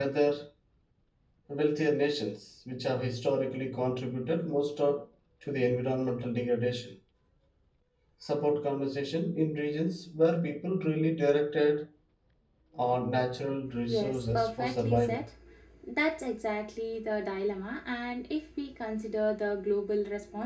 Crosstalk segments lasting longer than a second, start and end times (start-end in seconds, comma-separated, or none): 13.9-15.2